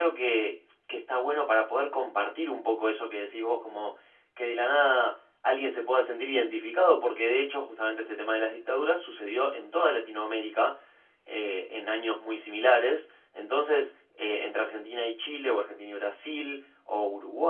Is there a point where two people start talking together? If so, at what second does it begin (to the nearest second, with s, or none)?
none